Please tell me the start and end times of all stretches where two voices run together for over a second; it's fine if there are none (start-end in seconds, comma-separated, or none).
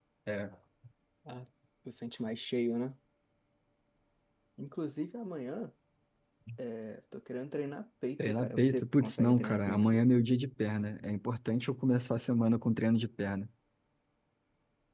8.2-10.1